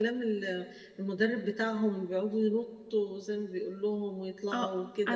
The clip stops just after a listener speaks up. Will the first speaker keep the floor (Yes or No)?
No